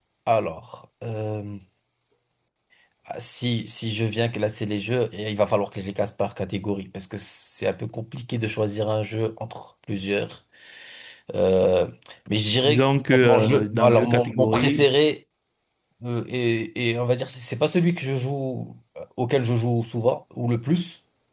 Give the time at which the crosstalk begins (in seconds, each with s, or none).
12.7 s